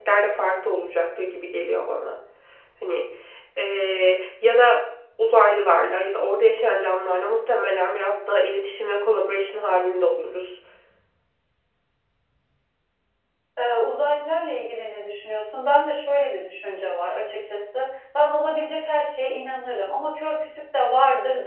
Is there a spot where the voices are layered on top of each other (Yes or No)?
No